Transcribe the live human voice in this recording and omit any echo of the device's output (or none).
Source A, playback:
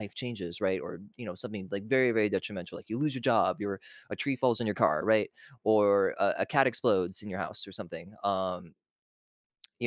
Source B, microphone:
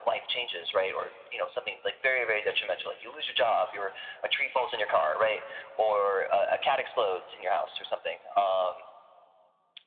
none